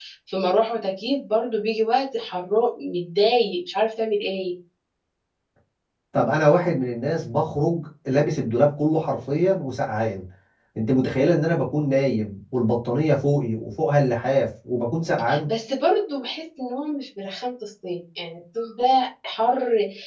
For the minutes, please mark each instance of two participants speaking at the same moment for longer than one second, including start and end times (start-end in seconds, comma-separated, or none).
none